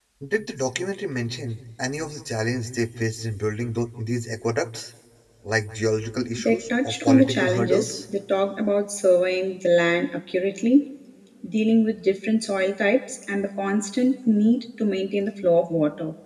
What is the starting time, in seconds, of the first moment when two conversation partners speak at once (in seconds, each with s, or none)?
6.4 s